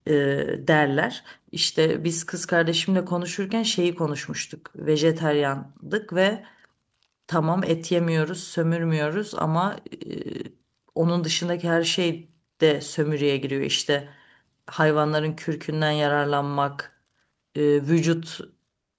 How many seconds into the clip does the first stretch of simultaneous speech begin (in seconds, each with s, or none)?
none